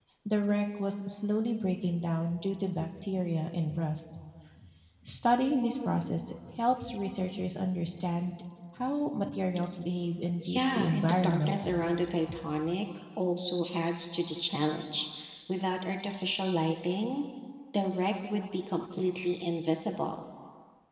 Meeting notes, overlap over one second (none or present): present